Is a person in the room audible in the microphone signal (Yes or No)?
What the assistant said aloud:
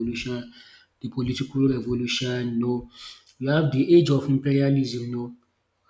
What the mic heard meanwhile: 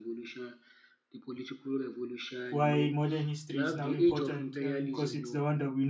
Yes